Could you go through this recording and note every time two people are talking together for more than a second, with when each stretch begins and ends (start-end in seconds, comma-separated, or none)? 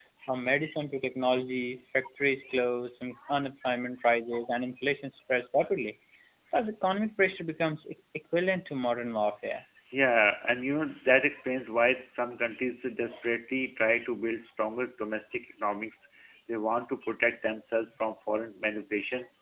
none